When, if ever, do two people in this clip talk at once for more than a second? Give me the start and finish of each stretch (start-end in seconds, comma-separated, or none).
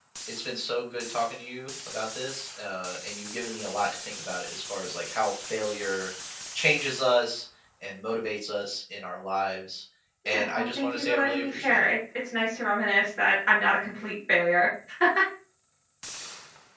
10.3-11.9